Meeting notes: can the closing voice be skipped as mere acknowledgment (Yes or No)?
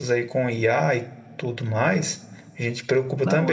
Yes